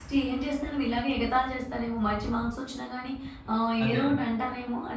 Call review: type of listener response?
listening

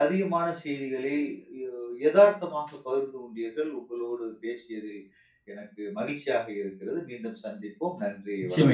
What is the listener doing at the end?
taking over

